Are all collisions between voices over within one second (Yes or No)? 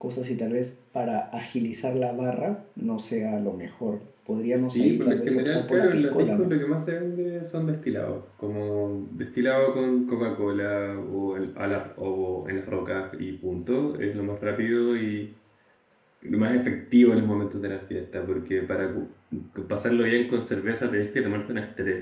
No